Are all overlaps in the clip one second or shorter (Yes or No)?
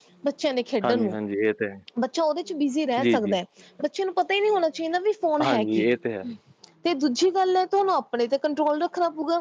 Yes